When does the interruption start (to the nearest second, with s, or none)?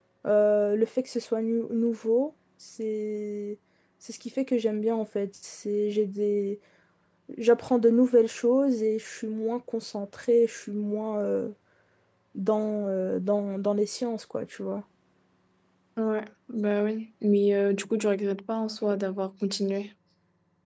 none